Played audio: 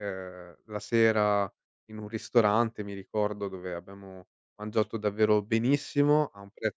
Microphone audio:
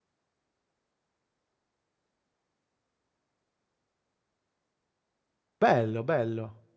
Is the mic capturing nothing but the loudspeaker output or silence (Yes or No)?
No